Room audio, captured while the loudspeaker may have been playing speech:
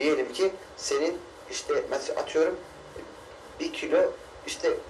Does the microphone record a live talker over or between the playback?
No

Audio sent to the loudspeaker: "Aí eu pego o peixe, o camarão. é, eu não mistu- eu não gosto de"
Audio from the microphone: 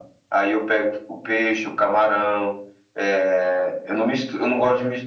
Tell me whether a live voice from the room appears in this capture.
No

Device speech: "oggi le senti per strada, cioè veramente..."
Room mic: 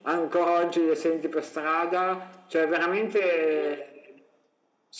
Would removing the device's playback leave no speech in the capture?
Yes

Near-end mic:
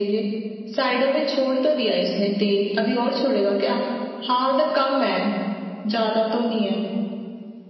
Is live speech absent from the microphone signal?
Yes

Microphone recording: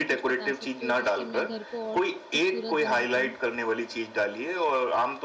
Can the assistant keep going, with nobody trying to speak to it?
No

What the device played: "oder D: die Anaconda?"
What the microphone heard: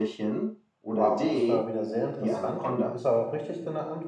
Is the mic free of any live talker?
No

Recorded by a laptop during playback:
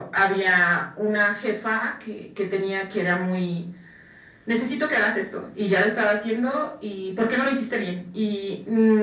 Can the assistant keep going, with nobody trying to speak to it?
Yes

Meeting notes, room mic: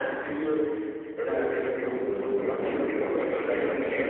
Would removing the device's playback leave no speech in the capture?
Yes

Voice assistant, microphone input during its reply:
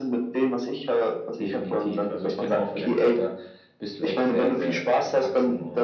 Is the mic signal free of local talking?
Yes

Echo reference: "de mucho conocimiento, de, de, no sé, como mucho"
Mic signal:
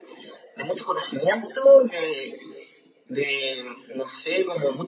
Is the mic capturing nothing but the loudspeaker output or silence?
Yes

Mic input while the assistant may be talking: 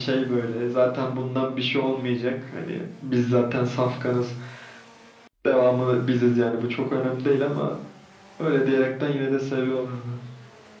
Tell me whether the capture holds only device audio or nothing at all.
Yes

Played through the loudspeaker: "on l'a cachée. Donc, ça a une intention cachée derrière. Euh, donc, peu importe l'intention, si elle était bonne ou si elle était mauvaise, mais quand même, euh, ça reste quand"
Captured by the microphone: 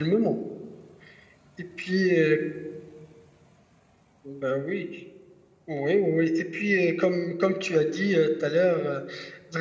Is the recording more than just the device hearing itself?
Yes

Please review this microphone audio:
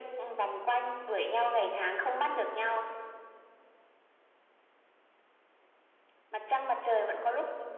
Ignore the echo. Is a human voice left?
No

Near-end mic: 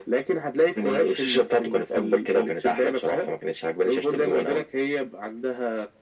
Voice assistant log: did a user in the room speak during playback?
No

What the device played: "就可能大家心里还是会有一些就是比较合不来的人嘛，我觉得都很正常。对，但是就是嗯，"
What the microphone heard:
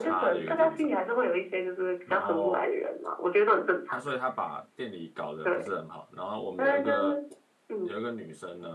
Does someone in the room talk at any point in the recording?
Yes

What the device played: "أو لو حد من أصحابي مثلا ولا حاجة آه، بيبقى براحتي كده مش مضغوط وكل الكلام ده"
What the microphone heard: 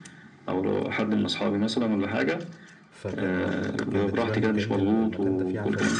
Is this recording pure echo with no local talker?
No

